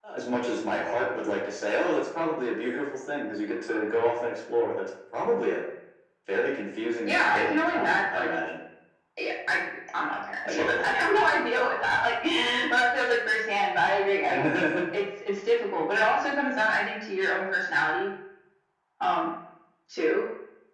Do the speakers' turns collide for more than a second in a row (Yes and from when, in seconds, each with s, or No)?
Yes, from 7.0 s